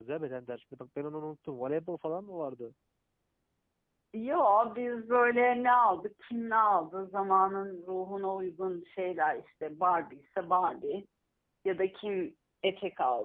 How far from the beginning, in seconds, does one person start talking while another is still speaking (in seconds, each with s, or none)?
none